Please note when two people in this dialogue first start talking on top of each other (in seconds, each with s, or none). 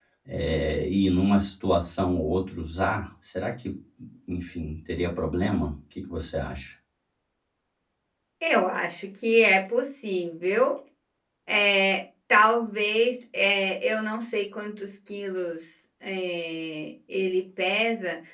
none